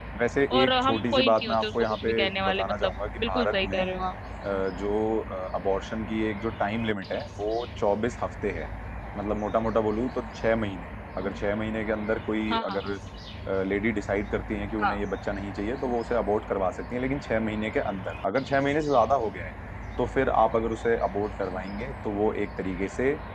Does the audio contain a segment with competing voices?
Yes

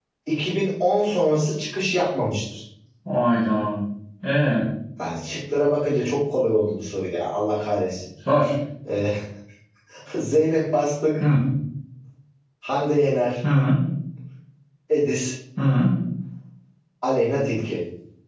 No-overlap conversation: Yes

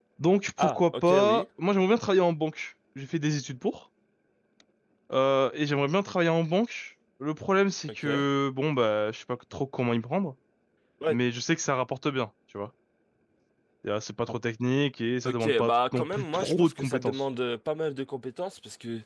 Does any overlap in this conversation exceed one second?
Yes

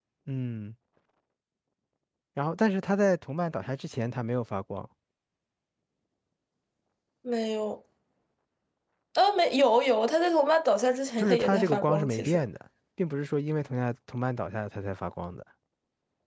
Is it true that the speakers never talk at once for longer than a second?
No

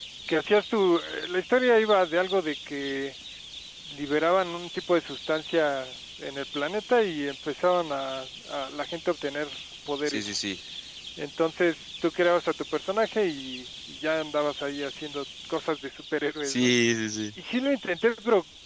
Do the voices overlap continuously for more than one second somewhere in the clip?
No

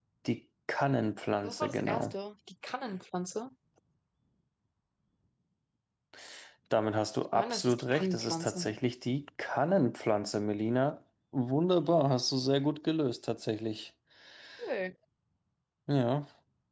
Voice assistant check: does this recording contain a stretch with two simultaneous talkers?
Yes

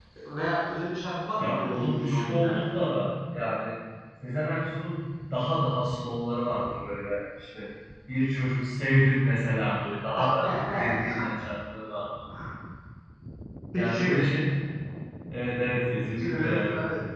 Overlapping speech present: Yes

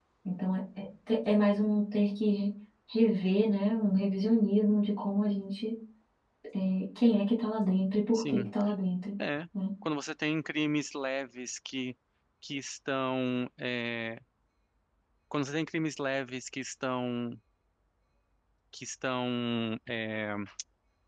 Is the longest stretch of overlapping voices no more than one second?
Yes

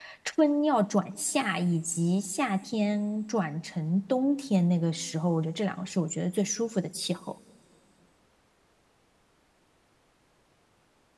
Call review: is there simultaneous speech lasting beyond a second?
No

